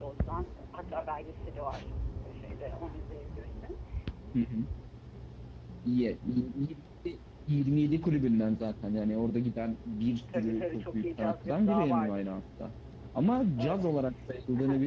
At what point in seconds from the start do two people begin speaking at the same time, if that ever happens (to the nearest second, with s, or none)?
10 s